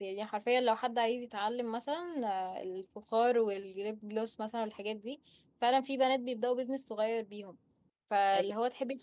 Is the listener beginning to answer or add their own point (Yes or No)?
No